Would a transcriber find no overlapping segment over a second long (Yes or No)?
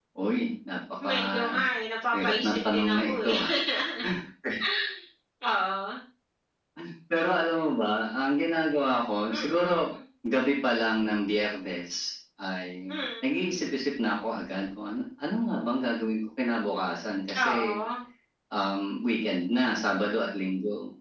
No